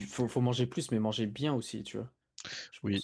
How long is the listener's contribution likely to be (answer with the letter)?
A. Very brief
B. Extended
B